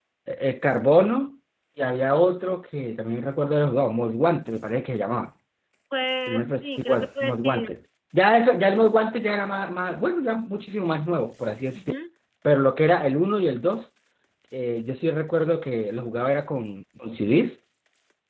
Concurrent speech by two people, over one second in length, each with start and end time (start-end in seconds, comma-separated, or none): 6.3-7.6